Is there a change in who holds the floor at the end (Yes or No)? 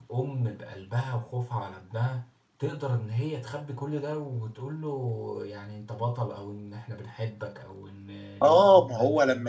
Yes